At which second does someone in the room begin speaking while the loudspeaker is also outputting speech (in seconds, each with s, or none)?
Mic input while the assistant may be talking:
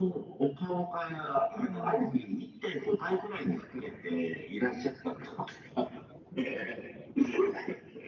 1.5 s